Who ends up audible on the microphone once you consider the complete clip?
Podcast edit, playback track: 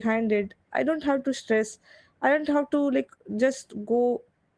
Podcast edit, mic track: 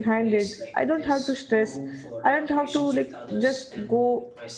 both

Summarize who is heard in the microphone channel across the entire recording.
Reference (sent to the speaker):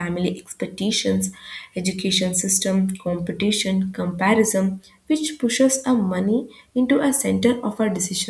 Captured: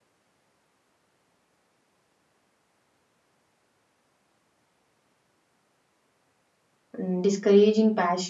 user only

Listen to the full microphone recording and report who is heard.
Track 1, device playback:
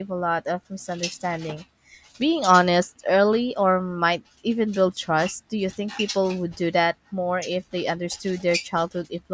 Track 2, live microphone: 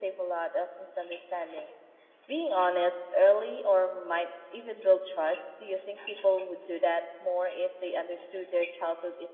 echo only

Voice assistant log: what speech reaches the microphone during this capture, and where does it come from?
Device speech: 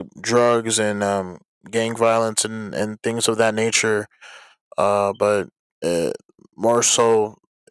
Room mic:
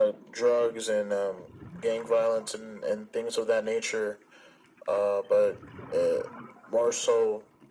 echo only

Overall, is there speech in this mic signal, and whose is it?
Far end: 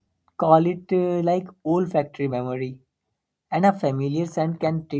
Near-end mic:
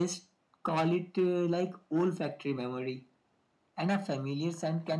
echo only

